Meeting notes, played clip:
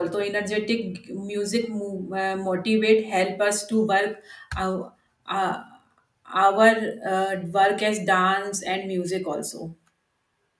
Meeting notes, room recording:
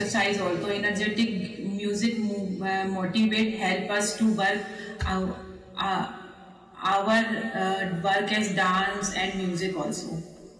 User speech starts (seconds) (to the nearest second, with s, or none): none